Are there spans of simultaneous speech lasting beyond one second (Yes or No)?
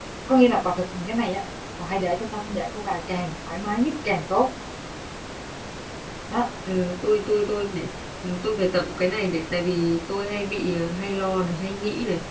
No